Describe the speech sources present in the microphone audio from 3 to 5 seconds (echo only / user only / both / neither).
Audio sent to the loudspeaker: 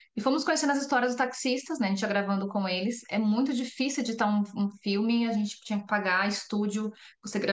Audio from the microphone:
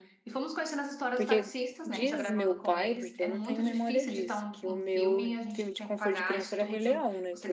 both